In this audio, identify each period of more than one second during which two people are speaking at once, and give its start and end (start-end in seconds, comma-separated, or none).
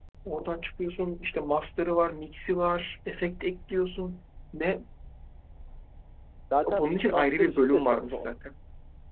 6.7-8.3